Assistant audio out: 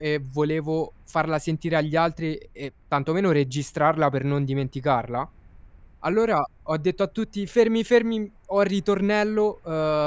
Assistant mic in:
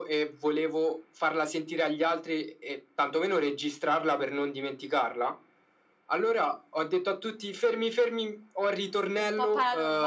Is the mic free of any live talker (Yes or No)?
No